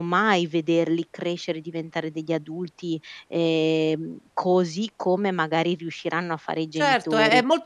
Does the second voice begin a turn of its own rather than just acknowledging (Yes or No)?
Yes